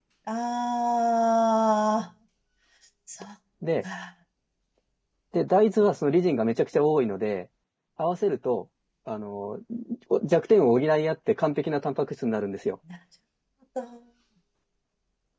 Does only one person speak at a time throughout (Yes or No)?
Yes